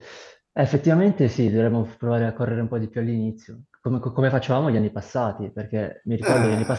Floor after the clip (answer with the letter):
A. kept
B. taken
A